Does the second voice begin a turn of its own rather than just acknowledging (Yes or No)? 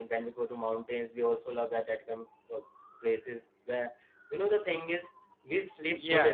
Yes